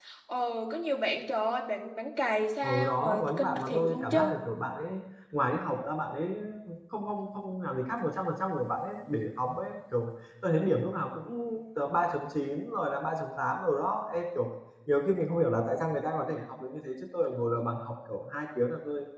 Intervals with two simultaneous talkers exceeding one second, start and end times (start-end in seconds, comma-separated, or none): 2.6-4.3